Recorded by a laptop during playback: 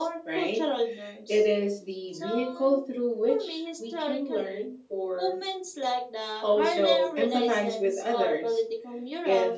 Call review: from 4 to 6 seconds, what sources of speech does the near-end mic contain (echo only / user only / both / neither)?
echo only